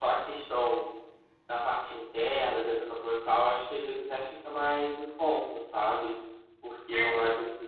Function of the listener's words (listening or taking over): listening